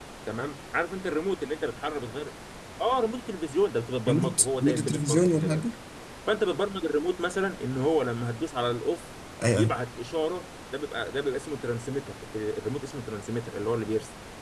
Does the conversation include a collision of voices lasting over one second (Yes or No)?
Yes